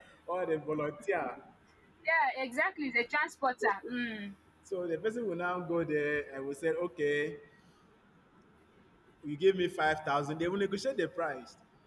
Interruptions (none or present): none